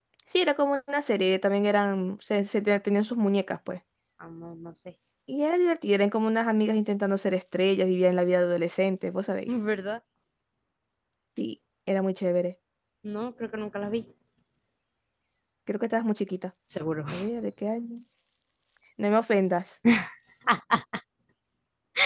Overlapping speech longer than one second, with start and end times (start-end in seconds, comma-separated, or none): none